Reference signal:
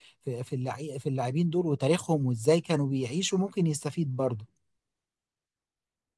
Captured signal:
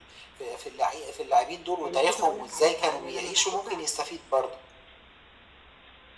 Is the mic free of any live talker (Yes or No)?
No